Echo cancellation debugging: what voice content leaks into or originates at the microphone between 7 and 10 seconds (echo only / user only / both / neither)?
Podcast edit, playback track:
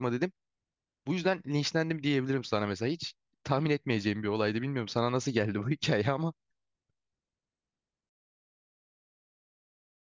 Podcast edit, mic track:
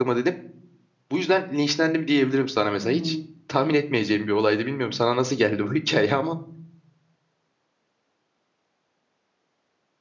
neither